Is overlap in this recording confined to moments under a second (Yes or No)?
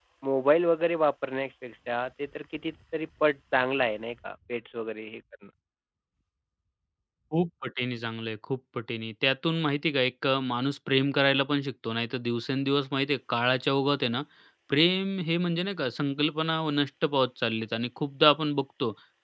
Yes